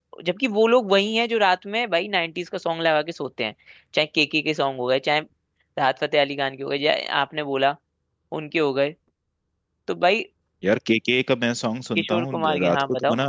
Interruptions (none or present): present